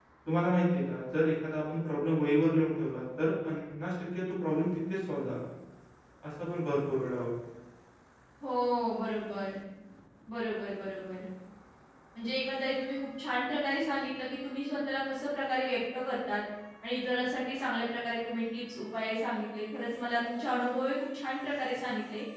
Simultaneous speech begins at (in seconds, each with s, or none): none